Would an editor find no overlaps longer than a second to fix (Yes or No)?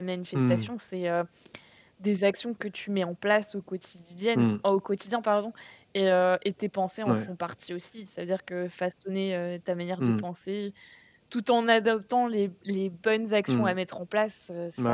Yes